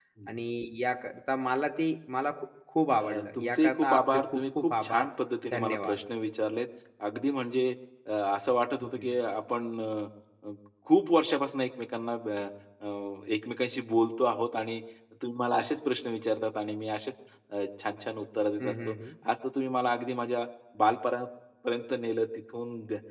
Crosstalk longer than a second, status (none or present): present